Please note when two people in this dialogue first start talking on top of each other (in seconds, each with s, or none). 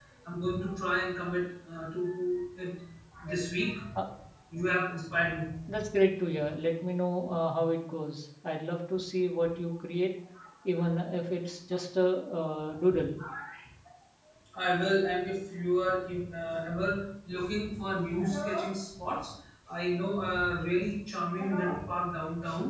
none